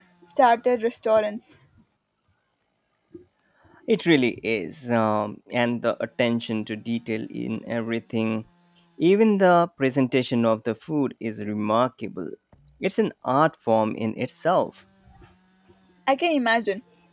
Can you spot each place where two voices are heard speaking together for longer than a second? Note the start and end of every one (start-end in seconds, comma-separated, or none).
none